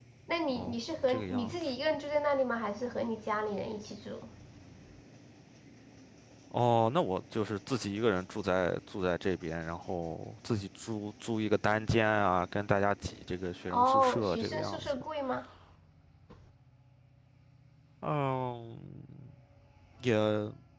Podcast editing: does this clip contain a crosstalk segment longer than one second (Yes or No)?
Yes